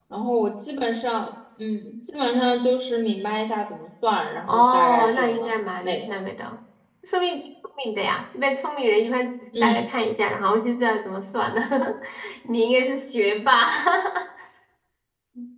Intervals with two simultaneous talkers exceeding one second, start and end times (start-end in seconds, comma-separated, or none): 4.4-6.2